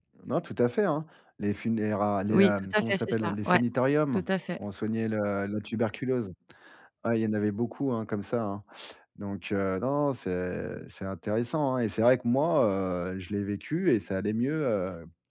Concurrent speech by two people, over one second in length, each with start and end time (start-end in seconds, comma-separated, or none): 2.3-3.6